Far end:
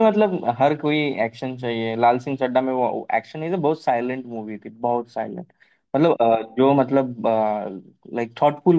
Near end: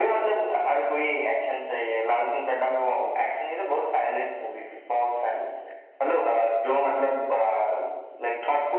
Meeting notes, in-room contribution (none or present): none